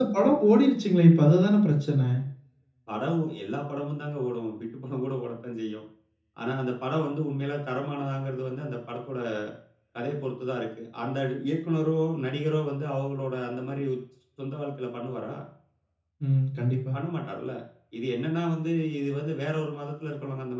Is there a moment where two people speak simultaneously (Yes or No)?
No